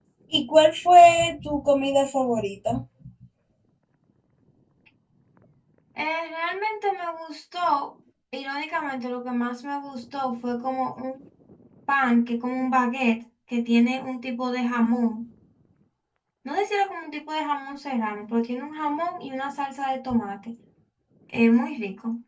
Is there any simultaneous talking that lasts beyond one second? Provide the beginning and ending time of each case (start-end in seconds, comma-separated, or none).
none